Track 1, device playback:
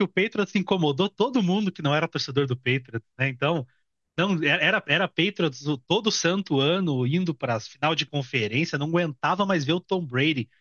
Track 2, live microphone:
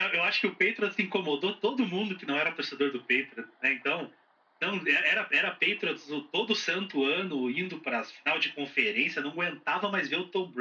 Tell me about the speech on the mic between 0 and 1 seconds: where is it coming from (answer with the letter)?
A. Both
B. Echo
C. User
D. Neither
B